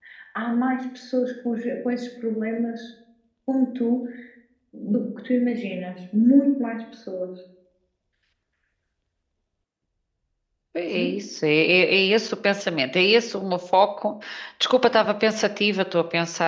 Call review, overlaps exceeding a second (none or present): none